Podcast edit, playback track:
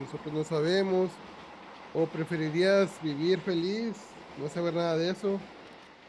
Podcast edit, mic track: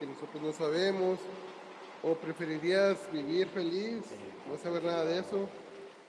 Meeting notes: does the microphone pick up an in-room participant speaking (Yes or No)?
Yes